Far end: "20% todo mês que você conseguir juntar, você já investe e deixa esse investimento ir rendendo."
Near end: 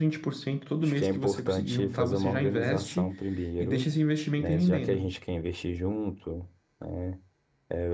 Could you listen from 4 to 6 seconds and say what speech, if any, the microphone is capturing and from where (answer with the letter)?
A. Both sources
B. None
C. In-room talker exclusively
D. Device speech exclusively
A